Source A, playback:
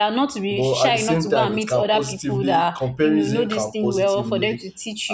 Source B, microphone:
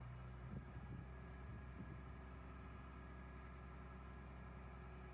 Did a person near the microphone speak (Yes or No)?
No